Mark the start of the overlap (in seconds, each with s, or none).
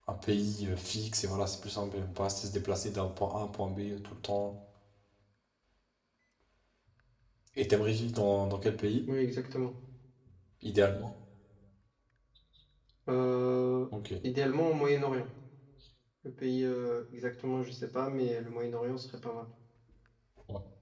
none